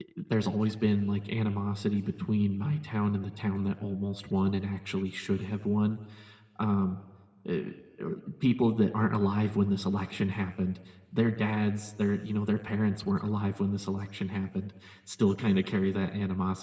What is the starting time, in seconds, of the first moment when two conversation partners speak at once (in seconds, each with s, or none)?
none